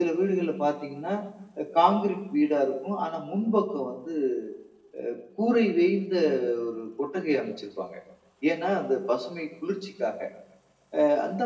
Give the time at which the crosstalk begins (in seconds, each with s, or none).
none